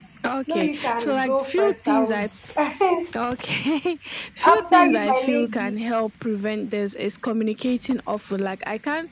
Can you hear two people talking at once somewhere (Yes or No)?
Yes